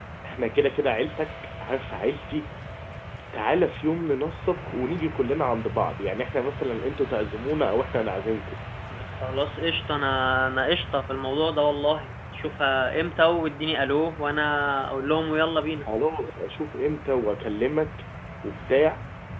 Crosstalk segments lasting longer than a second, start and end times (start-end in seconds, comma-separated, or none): none